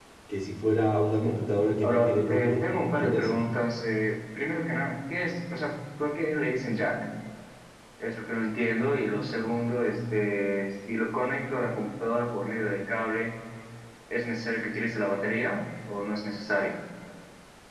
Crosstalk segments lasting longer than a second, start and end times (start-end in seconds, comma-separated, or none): 1.8-3.3